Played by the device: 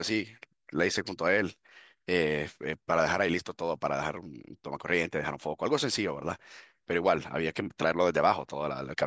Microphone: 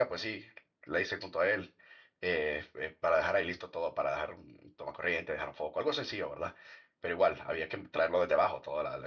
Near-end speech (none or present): none